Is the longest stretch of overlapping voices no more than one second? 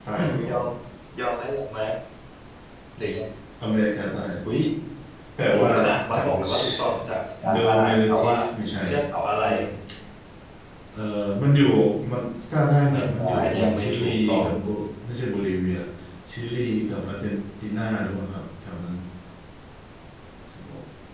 No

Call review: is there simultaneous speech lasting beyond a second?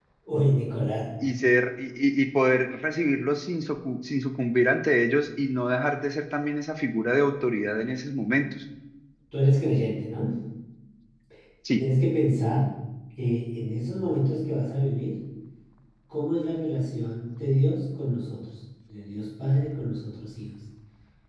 No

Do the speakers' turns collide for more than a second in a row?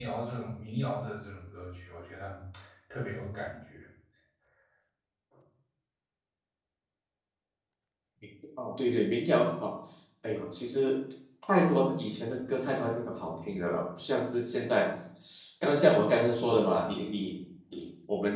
No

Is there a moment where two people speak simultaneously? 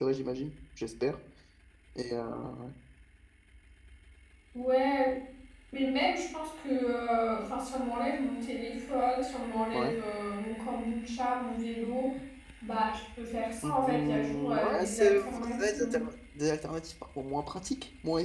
Yes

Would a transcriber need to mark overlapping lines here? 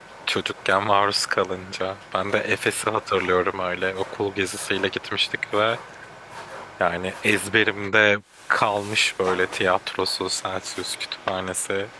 No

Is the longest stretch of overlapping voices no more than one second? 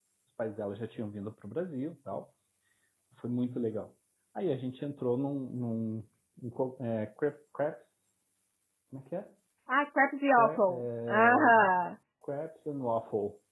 No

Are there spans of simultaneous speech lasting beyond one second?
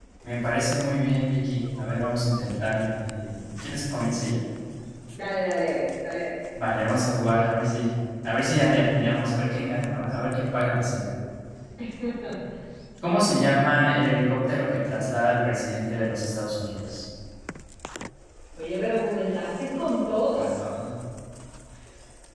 No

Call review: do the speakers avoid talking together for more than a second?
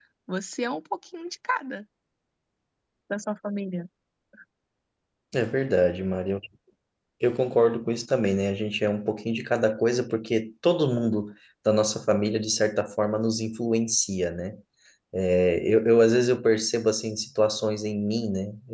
Yes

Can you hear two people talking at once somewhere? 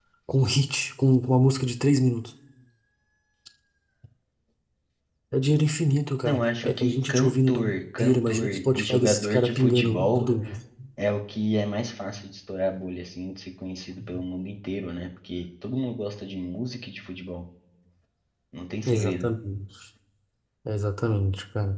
Yes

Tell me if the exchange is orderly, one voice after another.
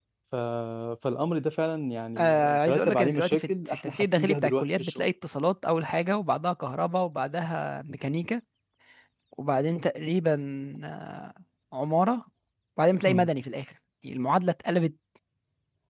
No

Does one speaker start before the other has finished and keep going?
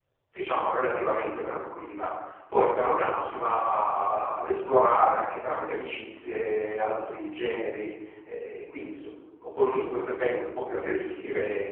No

